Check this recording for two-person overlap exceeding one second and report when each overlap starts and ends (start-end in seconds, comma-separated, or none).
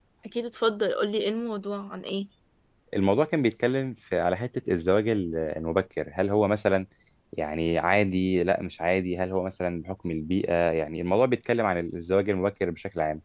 none